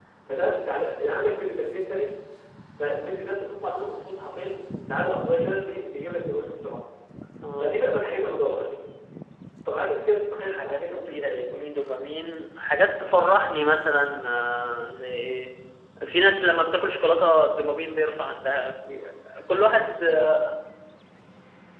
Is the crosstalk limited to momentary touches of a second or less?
No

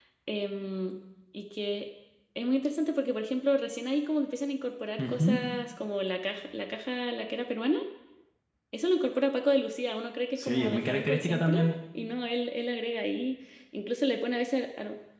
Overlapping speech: Yes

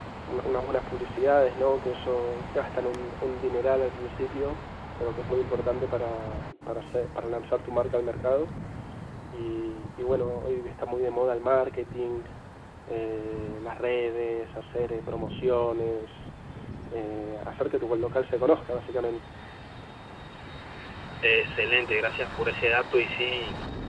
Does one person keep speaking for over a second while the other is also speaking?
No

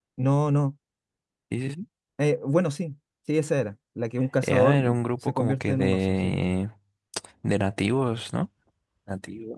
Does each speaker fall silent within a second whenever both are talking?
No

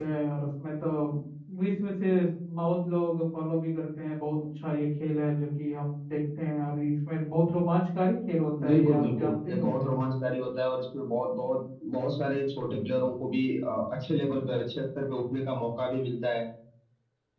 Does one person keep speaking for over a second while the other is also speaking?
Yes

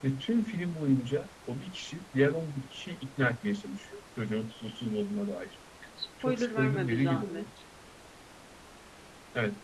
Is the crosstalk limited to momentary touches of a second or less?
No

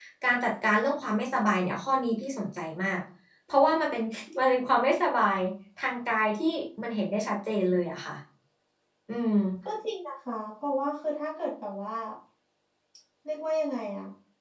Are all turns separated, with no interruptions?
Yes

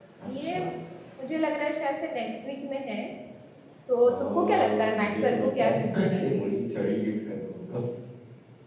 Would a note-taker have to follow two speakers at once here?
Yes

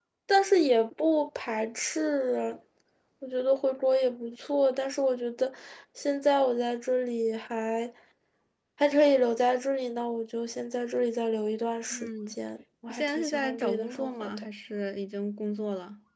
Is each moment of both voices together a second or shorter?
No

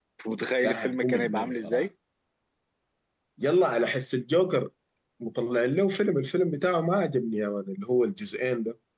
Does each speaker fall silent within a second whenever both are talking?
No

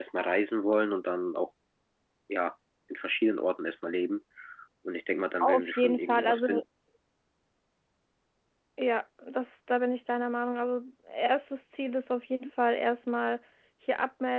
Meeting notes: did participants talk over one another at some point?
Yes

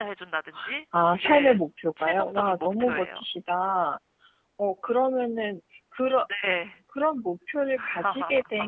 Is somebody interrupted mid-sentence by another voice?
Yes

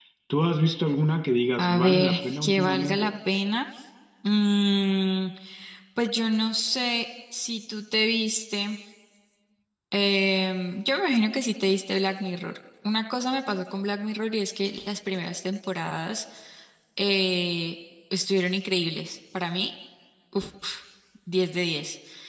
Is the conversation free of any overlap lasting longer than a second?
No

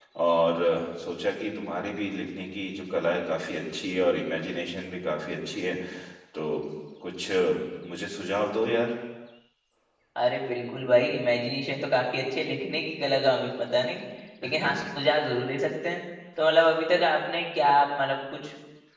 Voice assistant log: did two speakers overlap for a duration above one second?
No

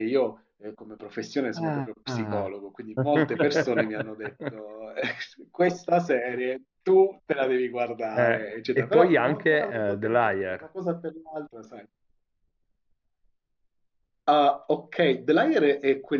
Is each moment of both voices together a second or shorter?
No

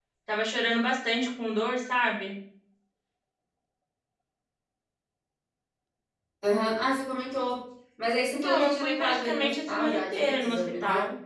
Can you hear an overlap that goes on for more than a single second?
Yes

